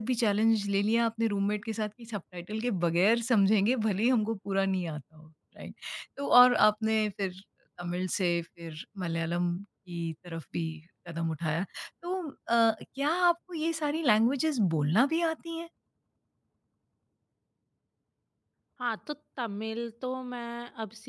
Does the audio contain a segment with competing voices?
No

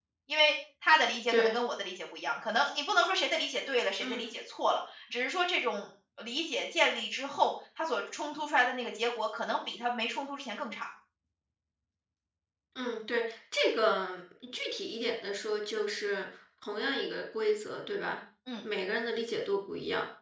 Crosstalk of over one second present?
No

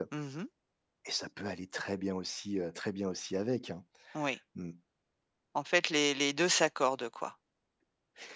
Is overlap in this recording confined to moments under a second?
Yes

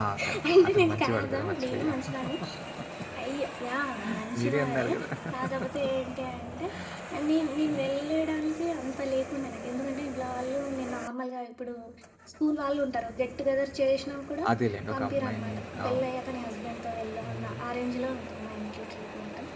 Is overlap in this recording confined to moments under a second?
No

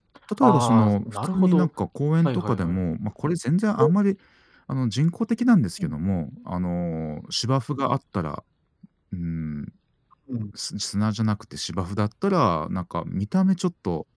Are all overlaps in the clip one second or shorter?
No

